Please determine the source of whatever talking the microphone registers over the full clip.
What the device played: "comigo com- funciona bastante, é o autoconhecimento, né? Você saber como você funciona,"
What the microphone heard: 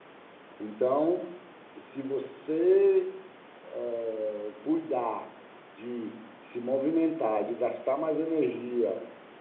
user only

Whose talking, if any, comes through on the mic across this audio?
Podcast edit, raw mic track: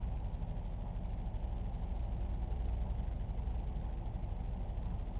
neither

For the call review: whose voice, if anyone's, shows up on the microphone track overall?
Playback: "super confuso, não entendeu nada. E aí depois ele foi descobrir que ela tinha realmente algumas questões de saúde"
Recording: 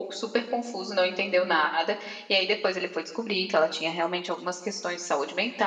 echo only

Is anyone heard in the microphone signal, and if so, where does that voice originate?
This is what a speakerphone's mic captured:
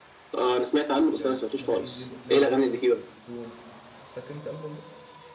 both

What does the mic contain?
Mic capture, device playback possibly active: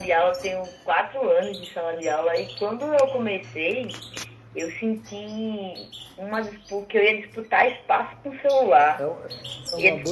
both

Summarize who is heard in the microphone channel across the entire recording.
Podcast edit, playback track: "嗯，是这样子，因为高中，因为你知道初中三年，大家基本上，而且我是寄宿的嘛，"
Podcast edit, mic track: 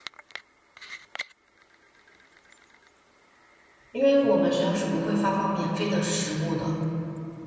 user only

